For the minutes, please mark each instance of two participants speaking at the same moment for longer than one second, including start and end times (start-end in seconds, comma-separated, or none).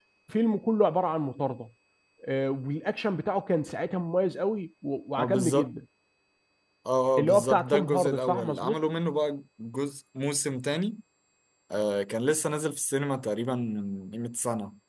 7.2-8.8